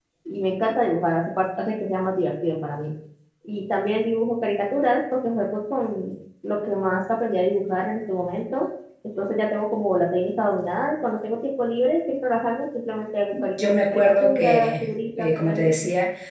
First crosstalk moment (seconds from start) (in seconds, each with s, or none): 13.3 s